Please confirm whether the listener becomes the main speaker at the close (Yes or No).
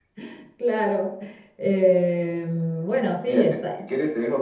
Yes